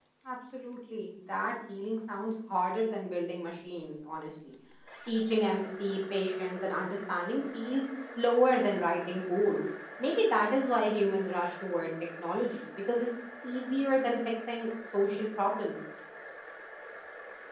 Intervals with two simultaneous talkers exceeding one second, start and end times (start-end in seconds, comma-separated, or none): none